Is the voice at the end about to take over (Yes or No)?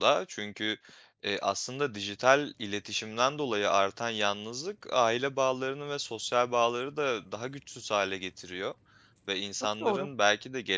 No